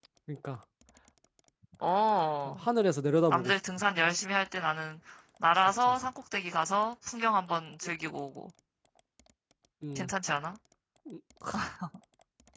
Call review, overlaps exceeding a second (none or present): none